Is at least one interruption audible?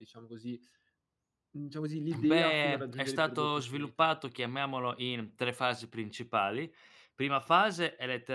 Yes, from 2.2 s

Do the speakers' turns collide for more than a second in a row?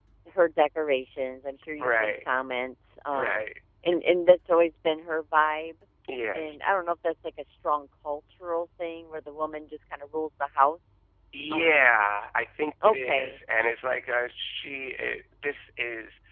No

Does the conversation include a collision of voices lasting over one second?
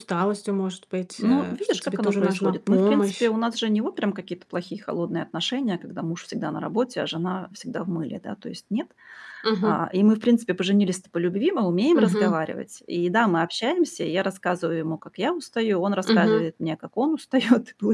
Yes, from 1.2 s

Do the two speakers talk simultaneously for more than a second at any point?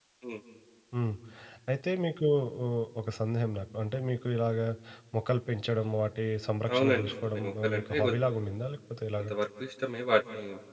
Yes, from 6.7 s

